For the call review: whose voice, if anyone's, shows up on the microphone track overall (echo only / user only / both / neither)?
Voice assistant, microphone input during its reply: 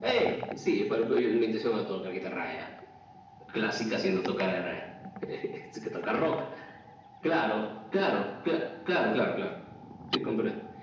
echo only